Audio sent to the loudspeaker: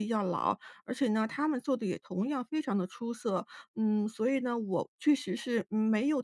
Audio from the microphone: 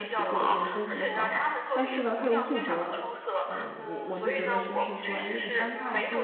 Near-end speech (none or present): present